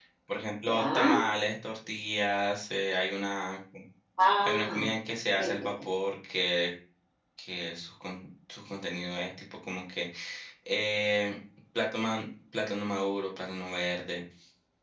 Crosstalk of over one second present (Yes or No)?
No